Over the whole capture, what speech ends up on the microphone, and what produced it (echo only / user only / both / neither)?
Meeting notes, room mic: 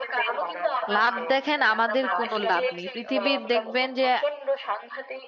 both